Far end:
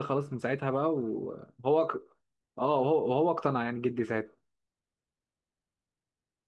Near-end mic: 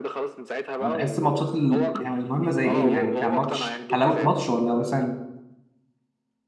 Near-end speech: present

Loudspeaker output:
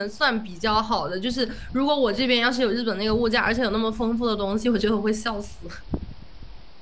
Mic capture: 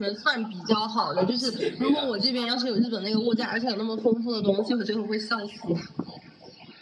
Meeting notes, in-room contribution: present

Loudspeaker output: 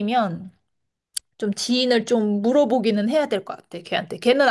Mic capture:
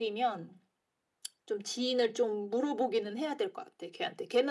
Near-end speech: none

